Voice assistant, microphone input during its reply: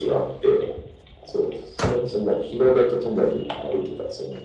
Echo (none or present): present